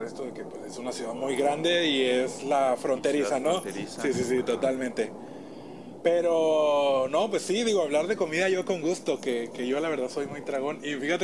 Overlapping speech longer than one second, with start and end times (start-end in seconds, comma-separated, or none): 2.9-4.8